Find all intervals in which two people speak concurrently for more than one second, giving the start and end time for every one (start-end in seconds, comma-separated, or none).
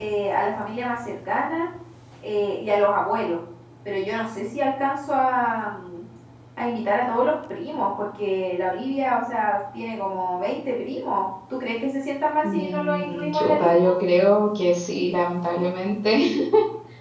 12.4-13.9